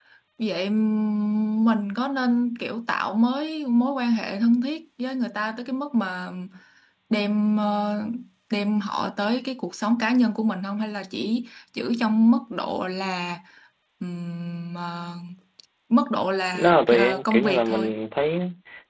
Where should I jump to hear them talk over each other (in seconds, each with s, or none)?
16.5 s